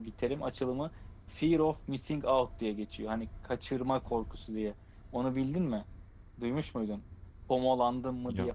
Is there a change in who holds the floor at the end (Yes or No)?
No